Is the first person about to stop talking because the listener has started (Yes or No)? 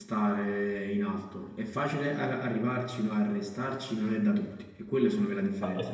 Yes